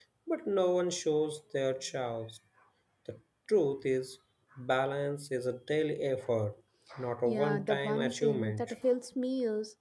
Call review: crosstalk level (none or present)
present